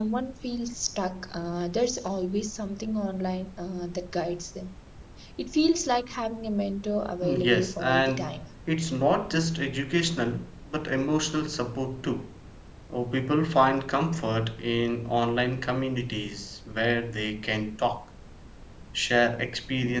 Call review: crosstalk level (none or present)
present